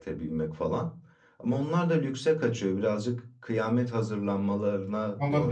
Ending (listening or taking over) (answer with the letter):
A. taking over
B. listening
A